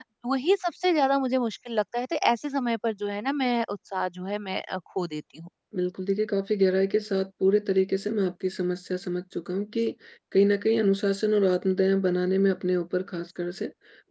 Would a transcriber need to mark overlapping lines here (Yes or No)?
No